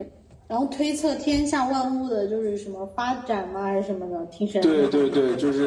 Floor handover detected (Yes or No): Yes